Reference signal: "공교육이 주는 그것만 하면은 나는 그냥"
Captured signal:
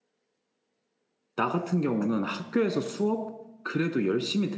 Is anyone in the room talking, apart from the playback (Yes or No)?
Yes